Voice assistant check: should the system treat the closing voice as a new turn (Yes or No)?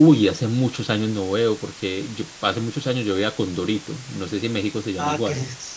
Yes